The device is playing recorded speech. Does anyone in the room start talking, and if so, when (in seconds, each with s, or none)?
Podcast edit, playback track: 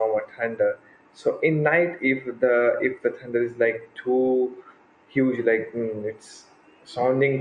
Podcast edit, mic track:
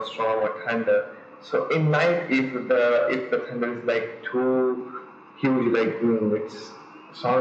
none